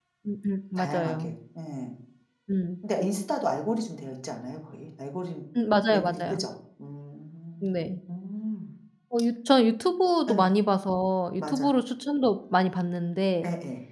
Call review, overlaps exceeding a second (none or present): none